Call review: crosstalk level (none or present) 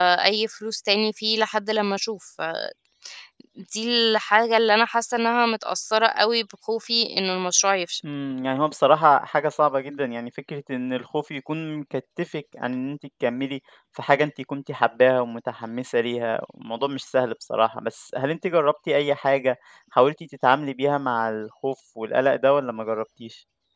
none